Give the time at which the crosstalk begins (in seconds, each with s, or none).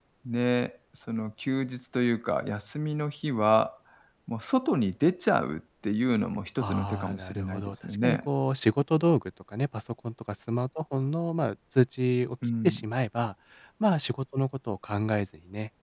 6.6 s